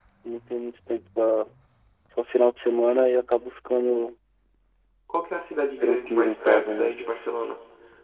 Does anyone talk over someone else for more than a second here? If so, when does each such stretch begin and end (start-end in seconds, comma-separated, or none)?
5.8-7.0